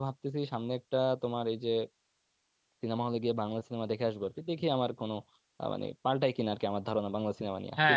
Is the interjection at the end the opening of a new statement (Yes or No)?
Yes